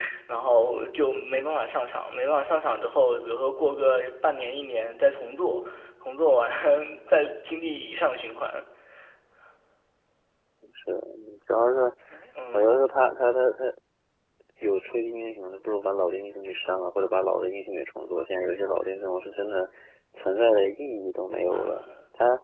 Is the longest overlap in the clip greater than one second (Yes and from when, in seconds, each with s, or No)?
No